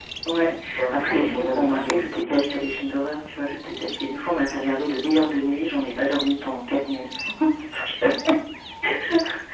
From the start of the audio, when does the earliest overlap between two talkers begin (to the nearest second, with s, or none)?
1 s